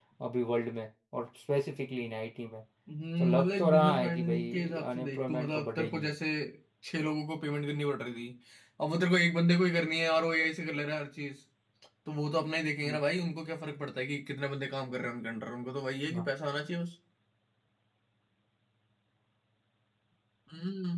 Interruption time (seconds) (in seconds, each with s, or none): 3.2 s